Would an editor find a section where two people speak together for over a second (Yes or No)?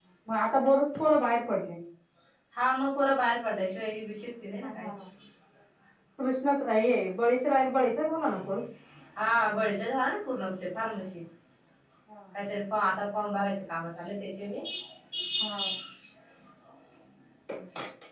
No